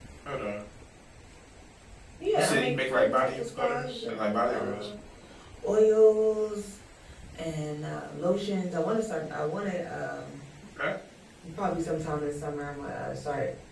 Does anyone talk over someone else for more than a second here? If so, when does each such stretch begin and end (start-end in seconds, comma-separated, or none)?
2.3-4.9